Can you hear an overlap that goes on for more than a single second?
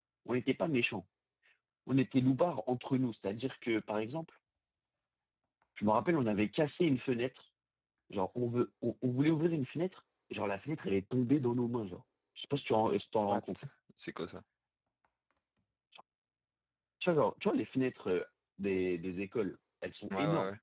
No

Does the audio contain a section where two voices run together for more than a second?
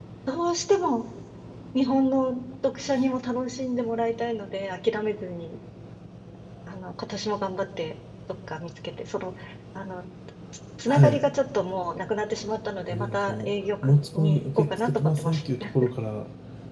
Yes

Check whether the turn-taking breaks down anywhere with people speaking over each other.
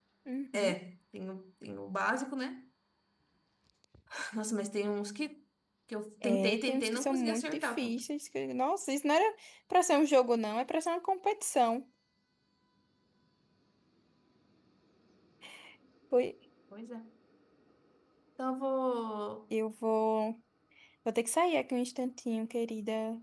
Yes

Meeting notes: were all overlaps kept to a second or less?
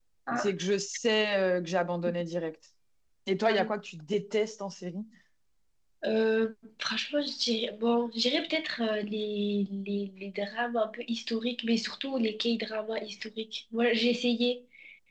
Yes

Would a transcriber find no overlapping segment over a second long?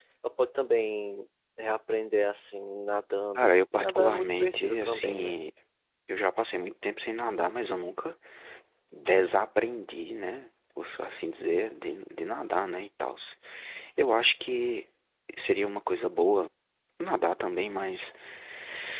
No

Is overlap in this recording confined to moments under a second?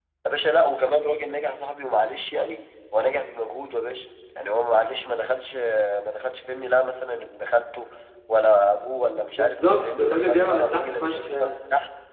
No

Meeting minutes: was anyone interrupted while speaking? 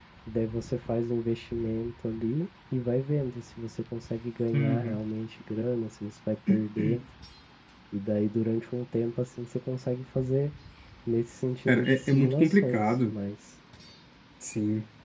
Yes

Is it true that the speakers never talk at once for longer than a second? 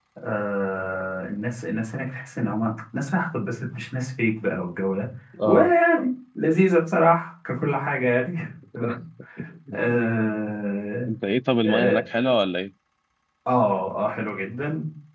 Yes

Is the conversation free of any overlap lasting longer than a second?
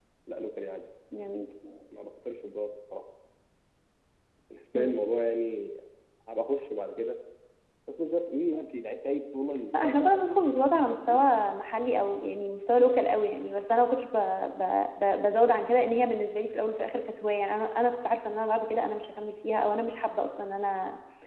Yes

